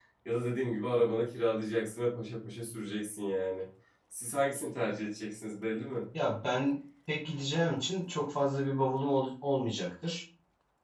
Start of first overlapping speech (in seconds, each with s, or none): none